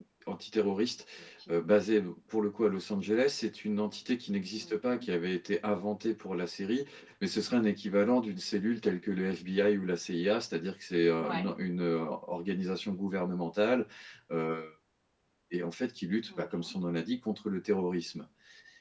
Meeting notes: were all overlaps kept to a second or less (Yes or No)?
Yes